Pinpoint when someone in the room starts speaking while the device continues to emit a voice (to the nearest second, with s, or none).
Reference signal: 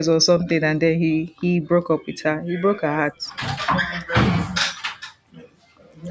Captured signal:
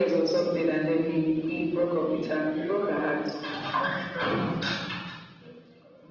none